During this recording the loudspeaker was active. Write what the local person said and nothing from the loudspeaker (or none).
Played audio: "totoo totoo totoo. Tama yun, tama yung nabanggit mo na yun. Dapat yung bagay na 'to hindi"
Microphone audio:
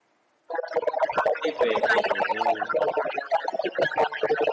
hindi puwede, oo,